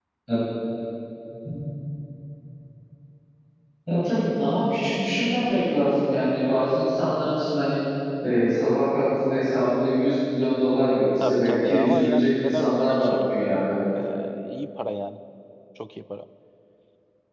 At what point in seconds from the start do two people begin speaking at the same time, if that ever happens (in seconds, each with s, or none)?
11.2 s